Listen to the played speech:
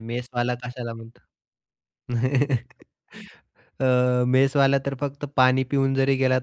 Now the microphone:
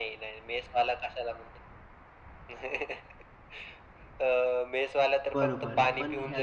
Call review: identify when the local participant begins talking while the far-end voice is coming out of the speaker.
5 s

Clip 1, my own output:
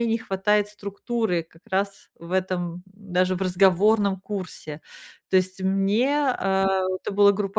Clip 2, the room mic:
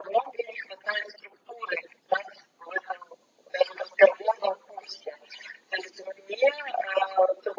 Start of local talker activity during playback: none

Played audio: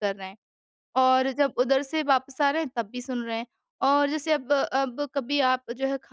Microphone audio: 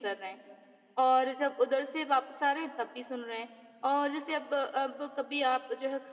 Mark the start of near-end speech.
none

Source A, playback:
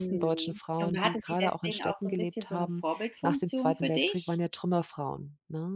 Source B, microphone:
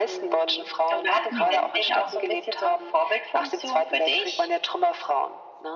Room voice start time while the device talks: 1 s

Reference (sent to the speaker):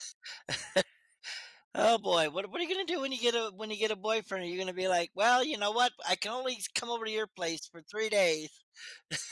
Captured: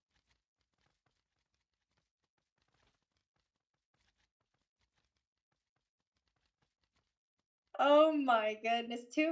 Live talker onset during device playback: 8 s

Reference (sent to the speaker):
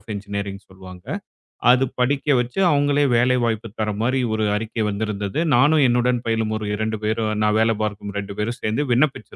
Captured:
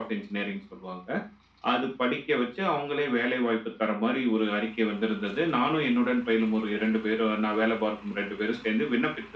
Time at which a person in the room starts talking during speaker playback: none

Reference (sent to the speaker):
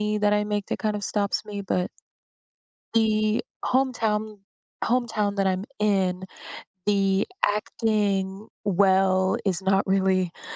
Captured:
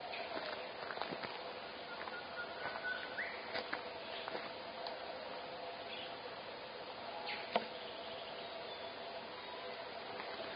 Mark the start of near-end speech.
none

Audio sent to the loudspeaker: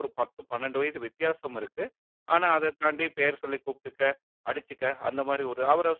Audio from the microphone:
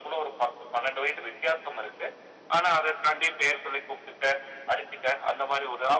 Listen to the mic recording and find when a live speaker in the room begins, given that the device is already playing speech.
none

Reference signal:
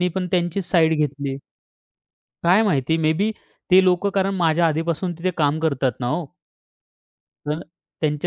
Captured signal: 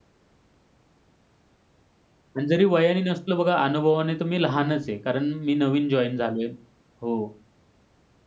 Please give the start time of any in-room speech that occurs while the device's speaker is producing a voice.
2 s

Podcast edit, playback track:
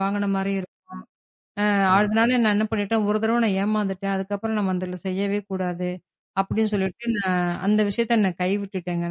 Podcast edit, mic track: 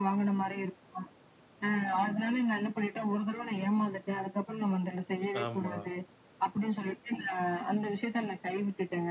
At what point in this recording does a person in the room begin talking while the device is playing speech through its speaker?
5 s

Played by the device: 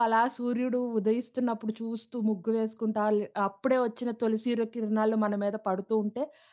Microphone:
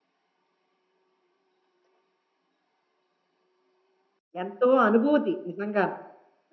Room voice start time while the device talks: 4 s

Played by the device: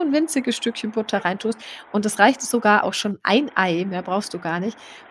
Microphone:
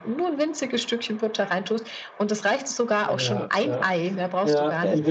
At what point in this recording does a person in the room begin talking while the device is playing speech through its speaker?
3 s

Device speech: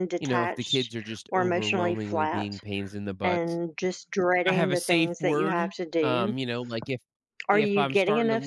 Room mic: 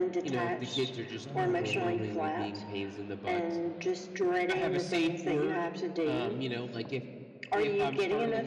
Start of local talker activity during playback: 1 s

